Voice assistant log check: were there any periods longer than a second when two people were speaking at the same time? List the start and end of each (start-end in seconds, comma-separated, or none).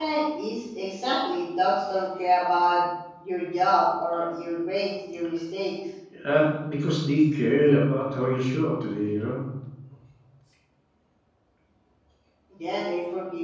none